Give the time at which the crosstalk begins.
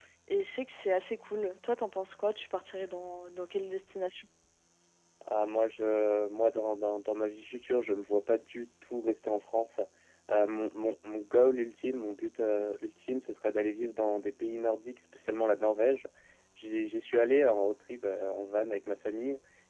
none

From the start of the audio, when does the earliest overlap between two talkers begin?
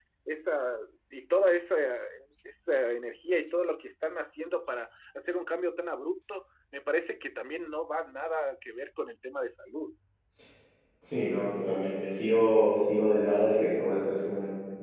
none

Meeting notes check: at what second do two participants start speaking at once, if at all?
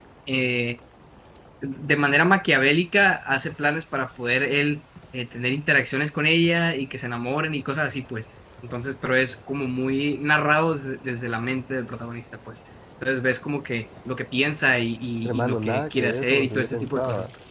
15 s

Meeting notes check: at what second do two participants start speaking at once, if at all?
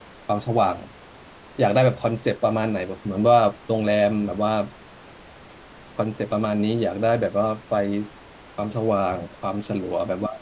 none

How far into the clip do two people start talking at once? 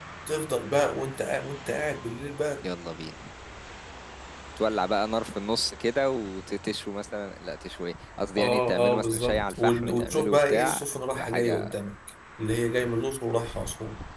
8 s

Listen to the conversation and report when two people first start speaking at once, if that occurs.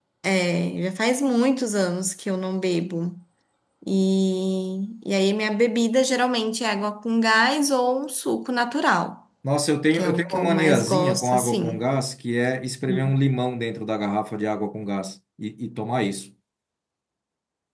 10 s

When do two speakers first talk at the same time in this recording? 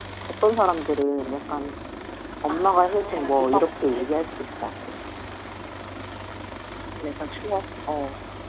2 s

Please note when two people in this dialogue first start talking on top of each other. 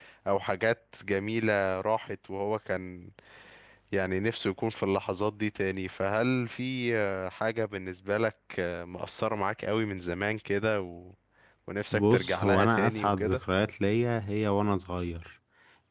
12 s

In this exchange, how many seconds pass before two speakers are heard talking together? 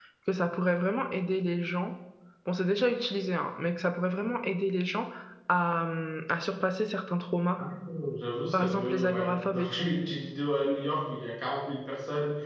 9 s

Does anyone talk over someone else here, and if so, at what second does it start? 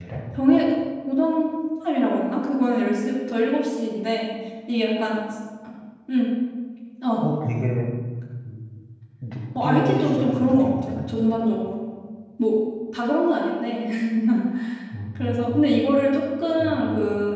10 s

